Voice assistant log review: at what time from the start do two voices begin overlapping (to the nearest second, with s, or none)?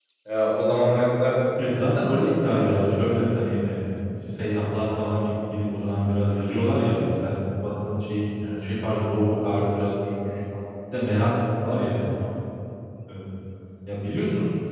none